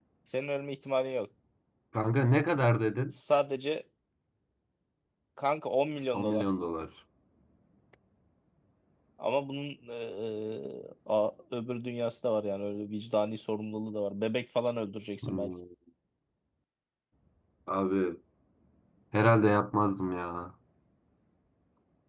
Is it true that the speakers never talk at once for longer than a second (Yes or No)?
Yes